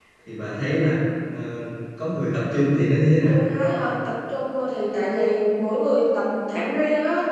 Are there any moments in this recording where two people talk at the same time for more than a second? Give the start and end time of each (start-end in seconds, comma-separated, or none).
none